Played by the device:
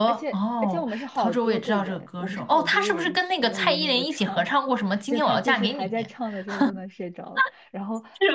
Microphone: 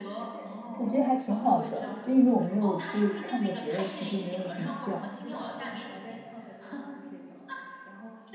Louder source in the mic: user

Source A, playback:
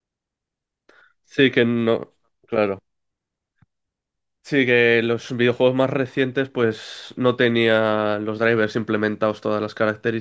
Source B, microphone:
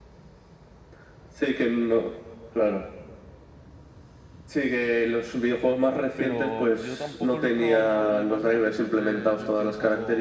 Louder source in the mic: echo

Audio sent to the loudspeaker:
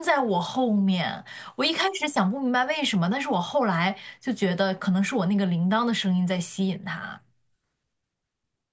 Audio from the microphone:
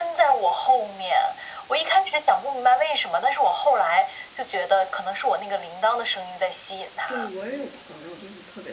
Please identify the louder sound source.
echo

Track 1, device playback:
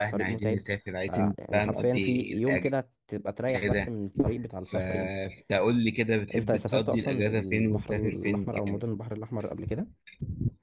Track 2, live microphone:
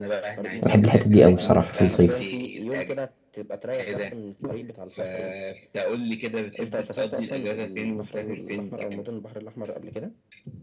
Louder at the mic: user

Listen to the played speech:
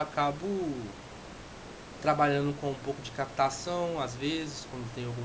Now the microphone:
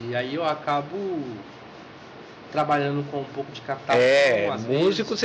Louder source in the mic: user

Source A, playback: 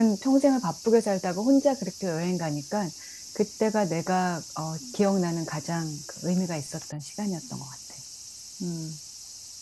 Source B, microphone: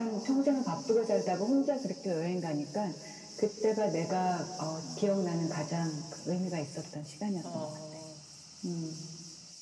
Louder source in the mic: echo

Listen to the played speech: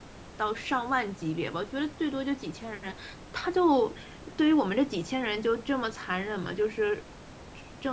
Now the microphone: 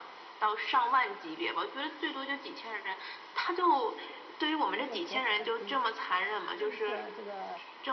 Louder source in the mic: echo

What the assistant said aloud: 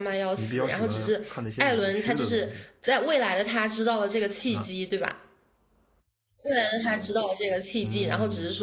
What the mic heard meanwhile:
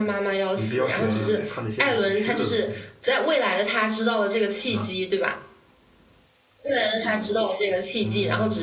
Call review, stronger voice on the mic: echo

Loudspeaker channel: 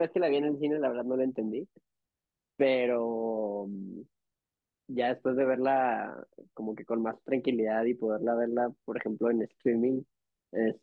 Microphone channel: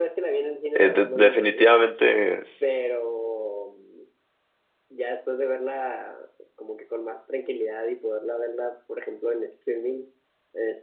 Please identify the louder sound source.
user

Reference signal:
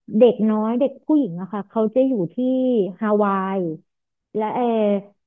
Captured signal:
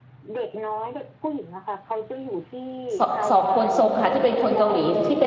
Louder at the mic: user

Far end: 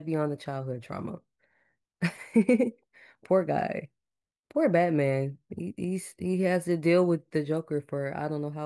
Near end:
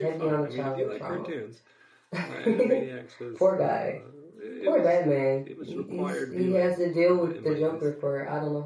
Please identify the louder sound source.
echo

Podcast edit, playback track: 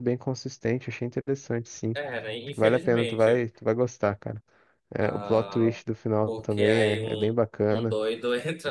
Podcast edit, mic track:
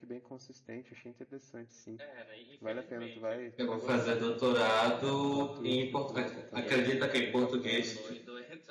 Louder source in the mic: user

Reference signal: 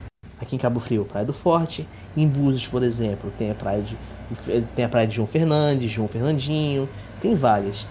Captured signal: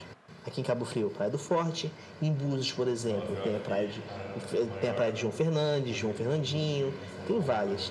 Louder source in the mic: echo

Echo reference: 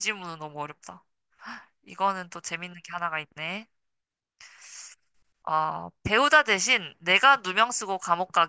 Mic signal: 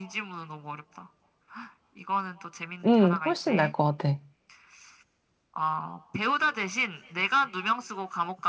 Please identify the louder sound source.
user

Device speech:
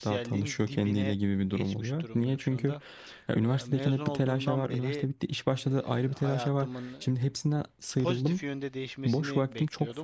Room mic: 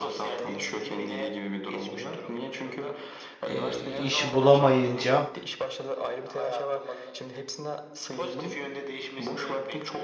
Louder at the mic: user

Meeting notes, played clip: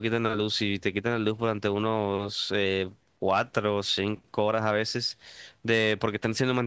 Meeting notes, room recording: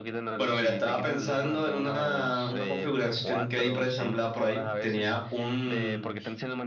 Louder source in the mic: user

